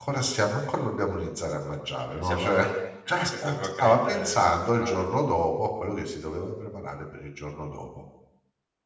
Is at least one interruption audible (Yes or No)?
Yes